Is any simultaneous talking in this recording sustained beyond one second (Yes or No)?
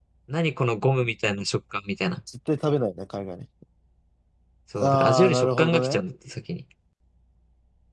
Yes